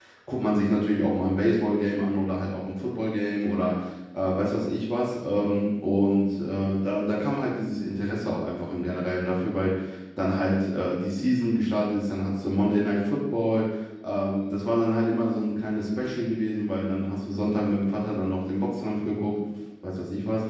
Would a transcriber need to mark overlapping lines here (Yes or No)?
No